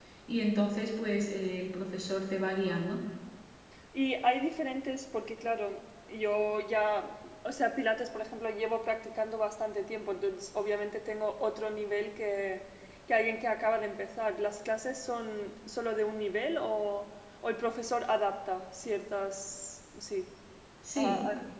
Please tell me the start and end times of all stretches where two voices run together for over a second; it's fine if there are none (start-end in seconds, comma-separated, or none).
none